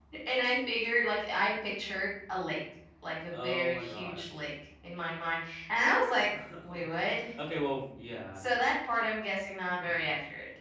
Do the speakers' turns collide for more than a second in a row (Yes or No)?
Yes